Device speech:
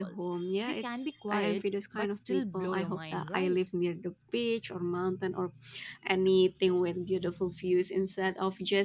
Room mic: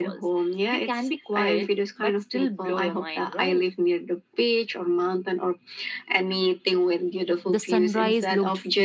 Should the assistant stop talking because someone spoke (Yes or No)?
Yes